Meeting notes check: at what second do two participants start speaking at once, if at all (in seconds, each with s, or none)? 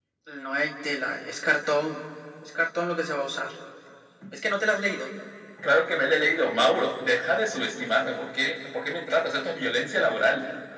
none